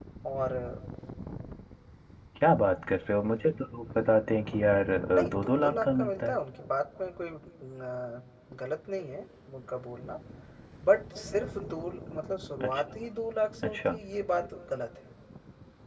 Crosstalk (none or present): present